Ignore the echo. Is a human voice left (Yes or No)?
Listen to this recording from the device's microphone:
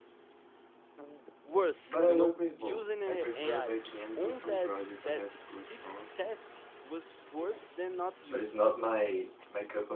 Yes